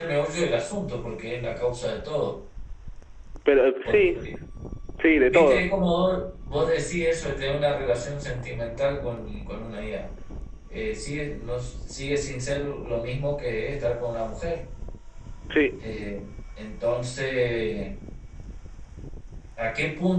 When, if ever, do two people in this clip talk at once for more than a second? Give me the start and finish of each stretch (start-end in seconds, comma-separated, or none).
none